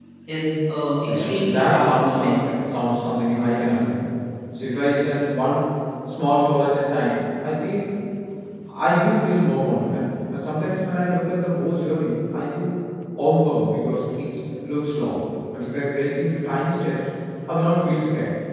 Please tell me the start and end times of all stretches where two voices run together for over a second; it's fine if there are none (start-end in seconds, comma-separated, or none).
1.1-2.4